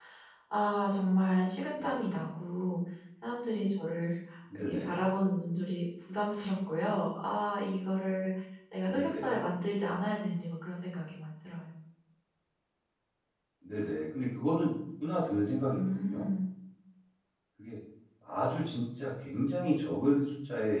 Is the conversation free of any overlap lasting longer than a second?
Yes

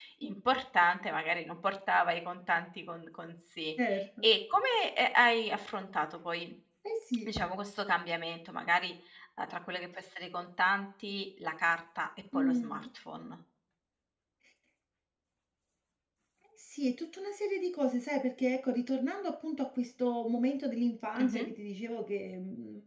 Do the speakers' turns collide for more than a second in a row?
No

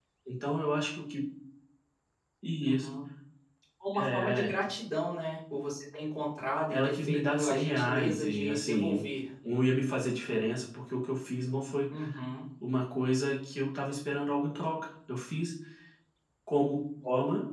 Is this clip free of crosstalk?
No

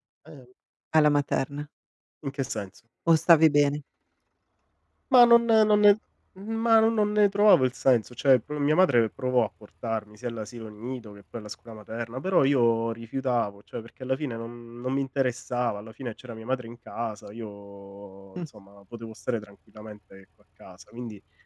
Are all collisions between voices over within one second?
Yes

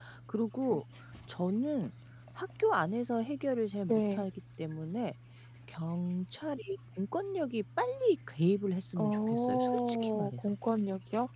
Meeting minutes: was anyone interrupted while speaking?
Yes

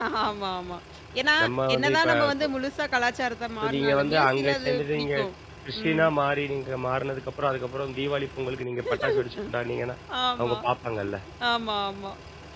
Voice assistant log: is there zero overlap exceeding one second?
No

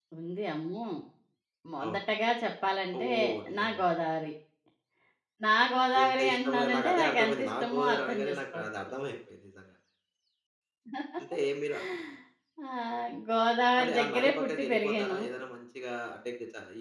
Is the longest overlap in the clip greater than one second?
Yes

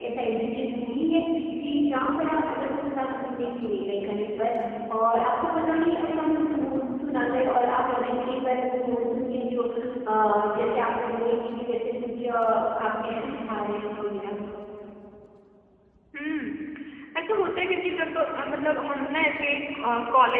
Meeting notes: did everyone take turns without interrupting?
Yes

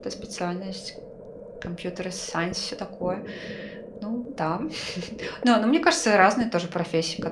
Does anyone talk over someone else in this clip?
No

